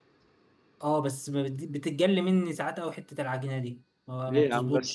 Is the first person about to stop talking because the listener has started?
Yes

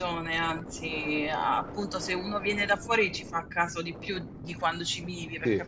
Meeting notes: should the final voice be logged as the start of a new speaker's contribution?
No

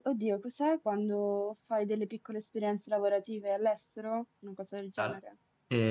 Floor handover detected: Yes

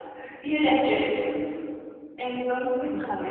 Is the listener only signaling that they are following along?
Yes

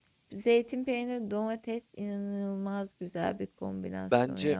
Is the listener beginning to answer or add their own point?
Yes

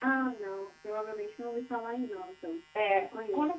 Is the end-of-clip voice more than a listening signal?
Yes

